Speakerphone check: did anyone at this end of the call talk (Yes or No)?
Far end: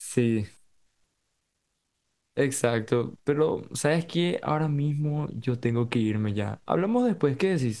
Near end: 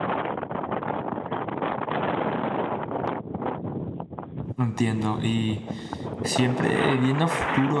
Yes